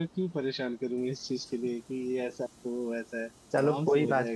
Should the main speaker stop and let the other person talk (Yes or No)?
Yes